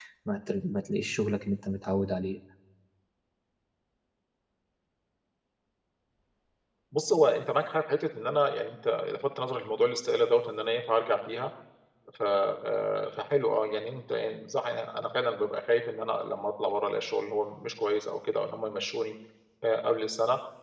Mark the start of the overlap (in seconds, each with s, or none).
none